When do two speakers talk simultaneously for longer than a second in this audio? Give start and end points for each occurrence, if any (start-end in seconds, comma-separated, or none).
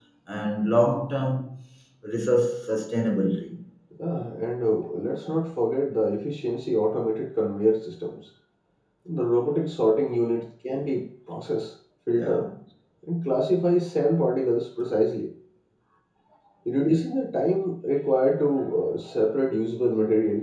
none